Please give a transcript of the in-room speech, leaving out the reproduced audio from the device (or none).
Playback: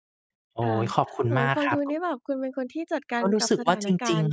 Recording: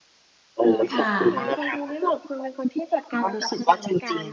ค่ะ